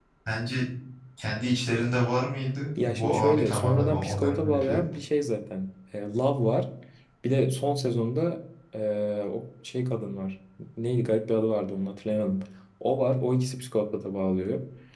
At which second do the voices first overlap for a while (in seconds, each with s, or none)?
2.8 s